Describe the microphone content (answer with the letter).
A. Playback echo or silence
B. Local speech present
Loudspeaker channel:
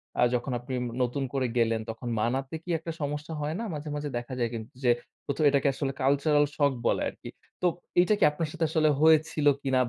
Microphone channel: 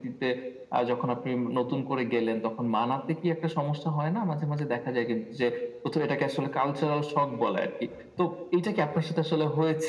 A